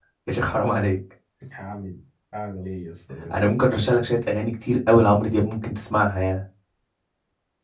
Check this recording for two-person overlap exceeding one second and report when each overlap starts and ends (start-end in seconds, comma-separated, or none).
none